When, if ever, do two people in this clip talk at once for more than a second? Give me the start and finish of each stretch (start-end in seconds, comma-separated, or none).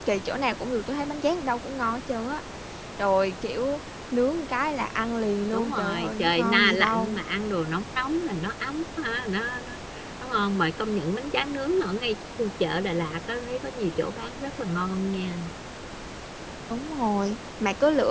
5.5-7.2